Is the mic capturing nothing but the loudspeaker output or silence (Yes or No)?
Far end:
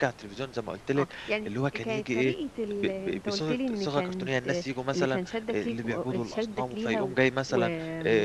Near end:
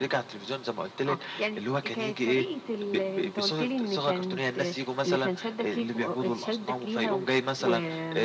Yes